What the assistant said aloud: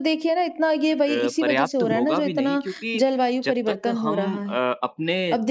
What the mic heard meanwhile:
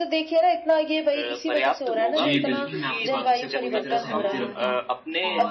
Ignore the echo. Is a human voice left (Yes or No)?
Yes